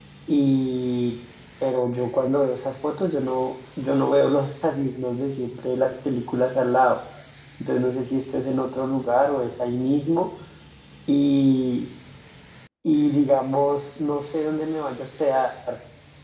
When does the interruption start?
none

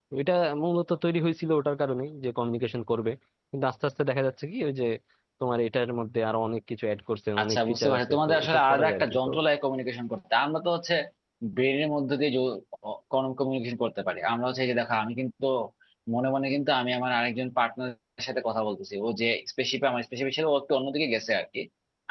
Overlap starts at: 7.4 s

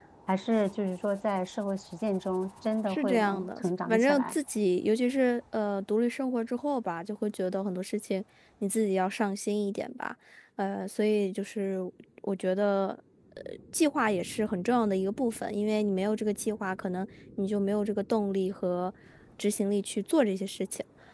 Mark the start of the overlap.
2.9 s

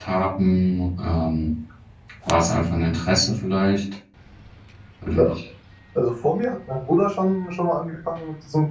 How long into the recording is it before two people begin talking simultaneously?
none

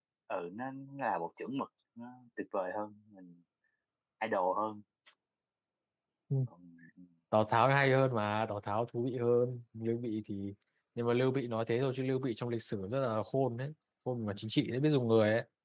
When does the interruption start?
none

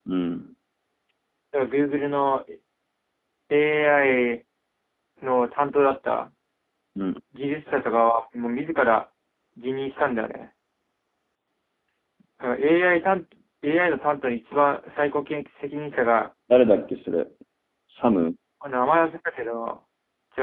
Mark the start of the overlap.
none

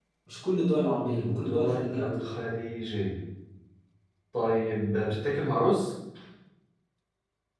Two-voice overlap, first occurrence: 1.1 s

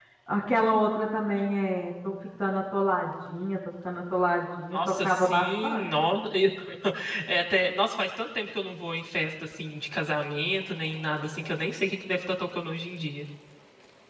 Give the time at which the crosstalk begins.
4.7 s

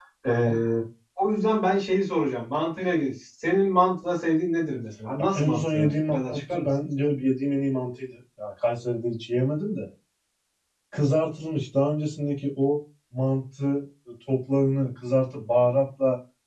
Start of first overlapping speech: 5.3 s

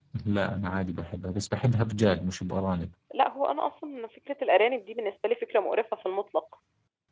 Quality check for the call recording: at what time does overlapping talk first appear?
none

